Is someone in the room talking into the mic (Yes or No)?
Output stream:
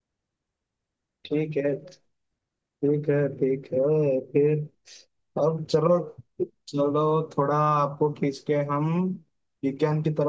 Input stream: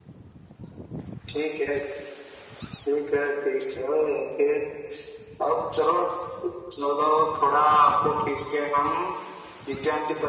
No